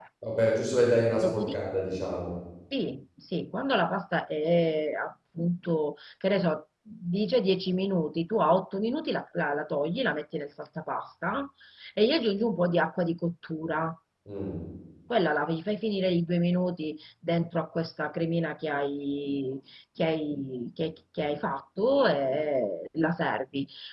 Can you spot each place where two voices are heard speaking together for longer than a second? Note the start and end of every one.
none

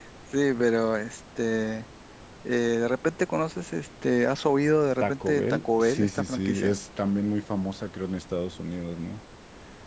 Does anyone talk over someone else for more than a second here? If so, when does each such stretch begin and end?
5.0-6.8

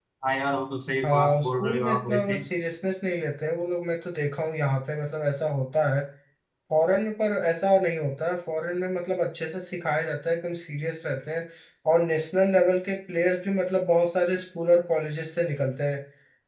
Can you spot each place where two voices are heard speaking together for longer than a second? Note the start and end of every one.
1.0-2.4

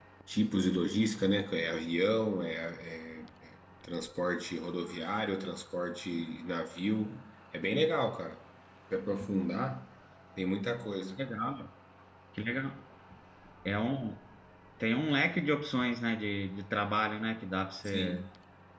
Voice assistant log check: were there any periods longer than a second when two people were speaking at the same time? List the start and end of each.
none

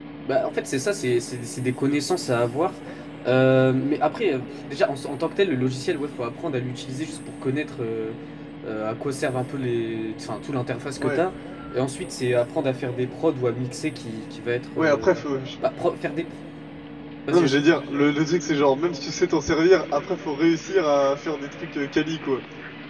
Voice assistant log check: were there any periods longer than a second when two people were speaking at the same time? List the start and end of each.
none

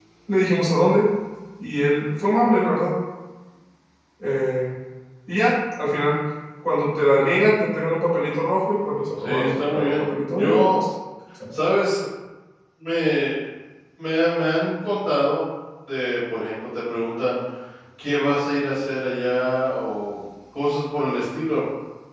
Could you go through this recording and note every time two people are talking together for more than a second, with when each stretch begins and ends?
9.2-10.8

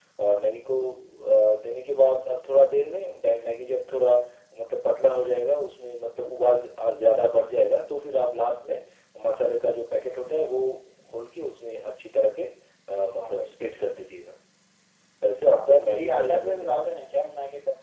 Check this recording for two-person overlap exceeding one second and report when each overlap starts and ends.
15.5-16.8

